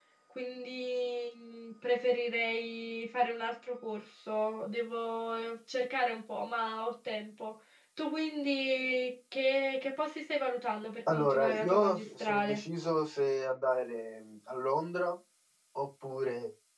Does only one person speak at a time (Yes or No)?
No